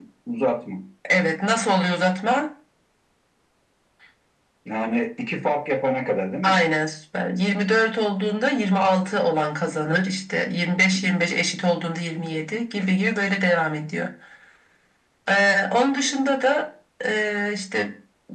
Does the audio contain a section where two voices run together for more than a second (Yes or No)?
No